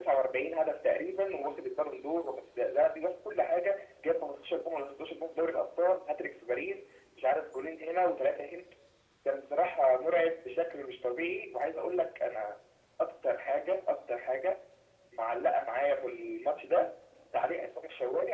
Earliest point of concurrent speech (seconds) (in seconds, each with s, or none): none